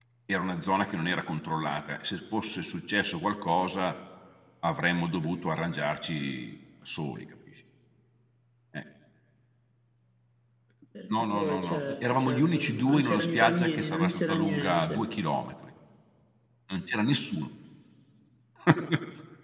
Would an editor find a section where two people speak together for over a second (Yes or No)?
Yes